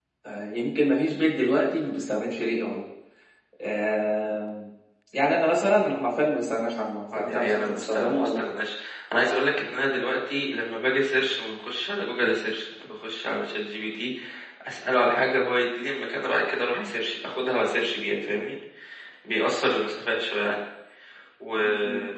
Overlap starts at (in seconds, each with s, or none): 7.1 s